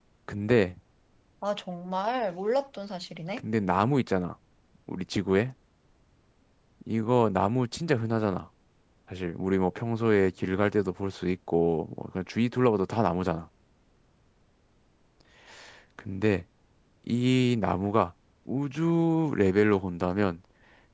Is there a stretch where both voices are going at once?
No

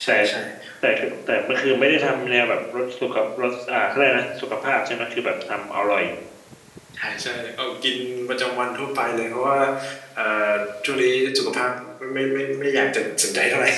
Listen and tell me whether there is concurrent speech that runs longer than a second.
No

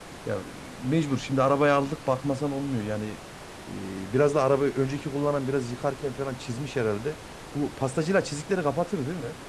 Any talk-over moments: No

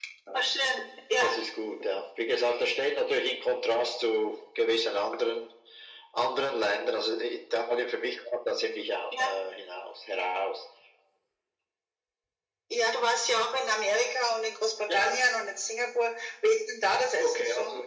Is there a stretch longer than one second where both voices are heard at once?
No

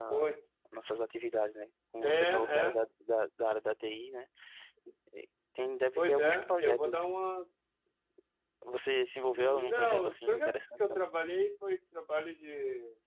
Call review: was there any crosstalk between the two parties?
Yes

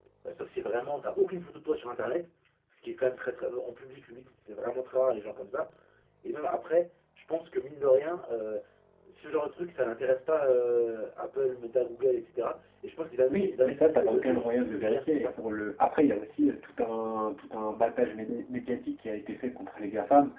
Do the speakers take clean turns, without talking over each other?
No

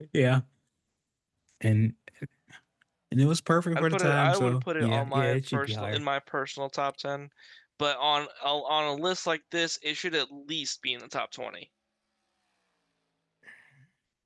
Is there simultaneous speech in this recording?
Yes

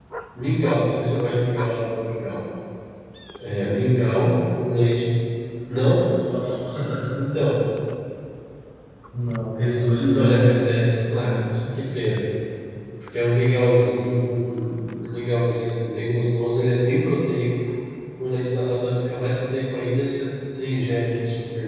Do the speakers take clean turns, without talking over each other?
No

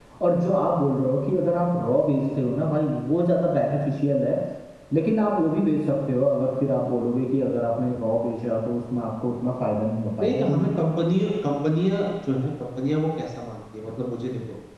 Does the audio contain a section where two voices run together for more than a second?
No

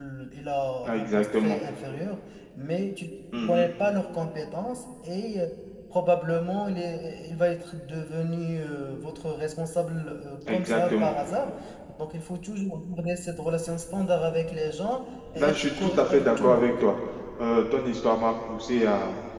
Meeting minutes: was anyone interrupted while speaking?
Yes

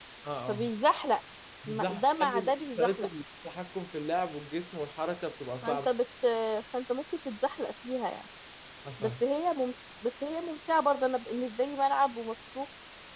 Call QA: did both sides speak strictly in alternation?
No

